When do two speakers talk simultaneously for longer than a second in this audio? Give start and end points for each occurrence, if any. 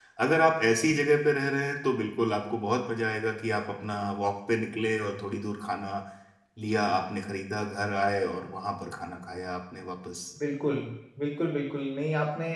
none

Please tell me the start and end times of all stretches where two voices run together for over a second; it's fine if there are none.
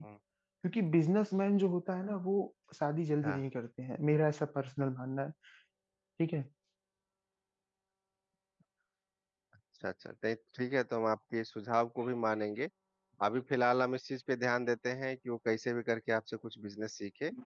none

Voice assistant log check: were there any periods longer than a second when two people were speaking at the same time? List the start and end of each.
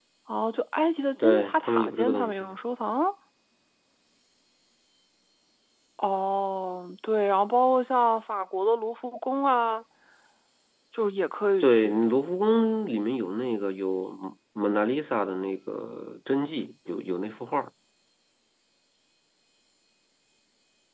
1.2-2.5

